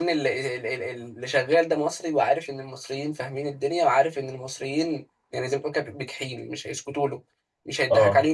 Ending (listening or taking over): listening